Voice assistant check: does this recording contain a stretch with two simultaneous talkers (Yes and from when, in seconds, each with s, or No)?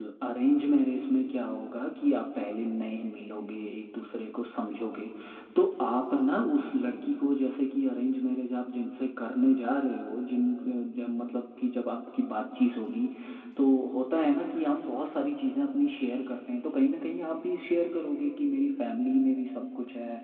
No